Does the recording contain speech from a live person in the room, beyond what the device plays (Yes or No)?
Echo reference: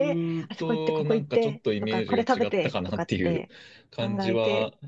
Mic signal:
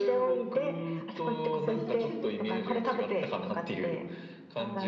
Yes